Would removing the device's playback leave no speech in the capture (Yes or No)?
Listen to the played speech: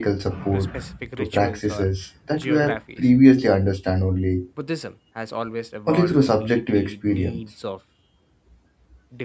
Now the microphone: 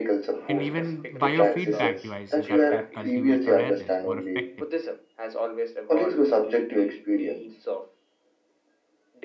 No